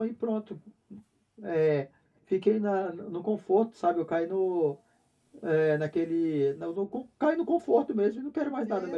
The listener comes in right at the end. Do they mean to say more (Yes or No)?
Yes